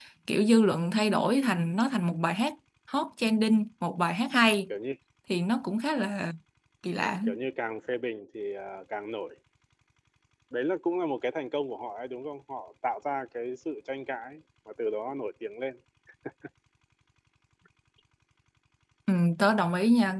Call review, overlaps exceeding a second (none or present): none